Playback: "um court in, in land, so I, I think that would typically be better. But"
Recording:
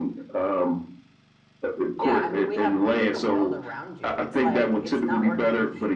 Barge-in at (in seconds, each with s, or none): 1.9 s